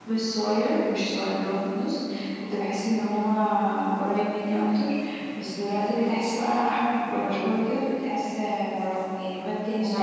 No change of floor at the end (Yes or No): Yes